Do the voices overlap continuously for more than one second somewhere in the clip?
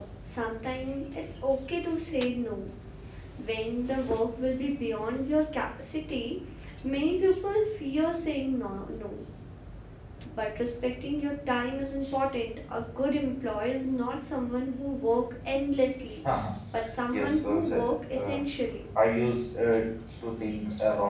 Yes, from 17.1 s

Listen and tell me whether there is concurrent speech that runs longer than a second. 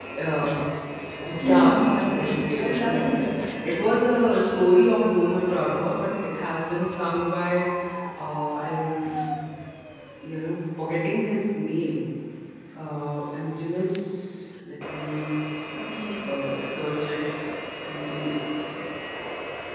Yes, from 1.5 s

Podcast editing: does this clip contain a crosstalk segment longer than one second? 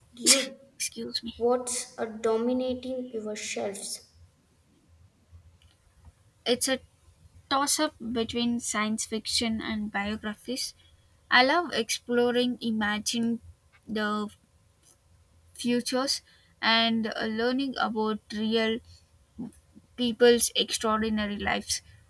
No

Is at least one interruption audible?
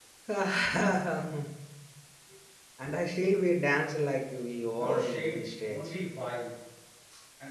Yes, from 4.7 s

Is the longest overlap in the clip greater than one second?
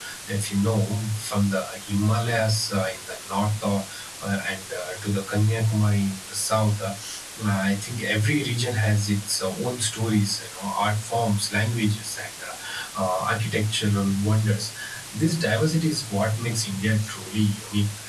No

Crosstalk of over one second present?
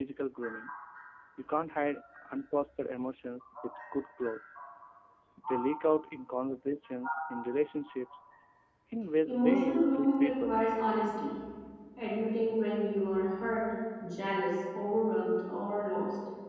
Yes, from 9.3 s

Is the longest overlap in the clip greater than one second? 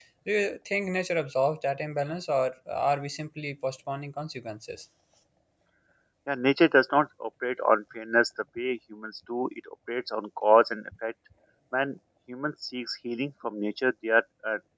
No

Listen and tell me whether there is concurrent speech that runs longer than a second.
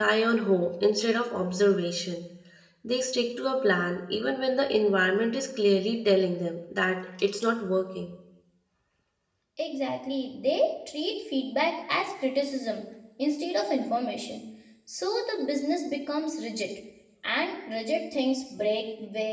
No

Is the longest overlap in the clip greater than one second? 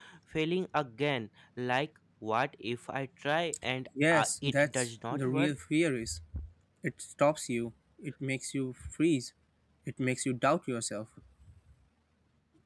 Yes, from 4.0 s

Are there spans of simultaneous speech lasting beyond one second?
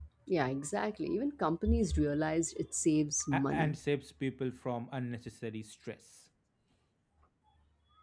No

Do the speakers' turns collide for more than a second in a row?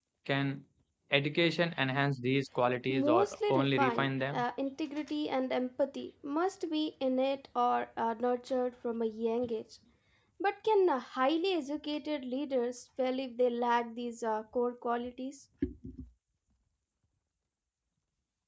Yes, from 2.9 s

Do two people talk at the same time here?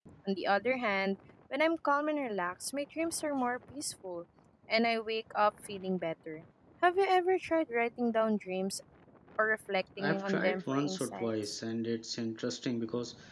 Yes, from 10.0 s

